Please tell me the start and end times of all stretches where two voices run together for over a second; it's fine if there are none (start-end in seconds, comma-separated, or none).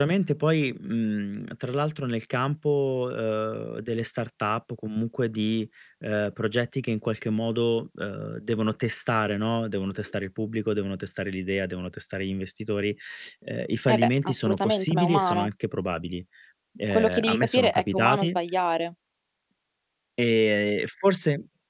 13.9-15.5, 16.9-18.4